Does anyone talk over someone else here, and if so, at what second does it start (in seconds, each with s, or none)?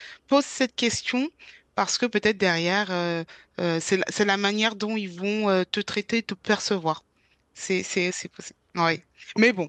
none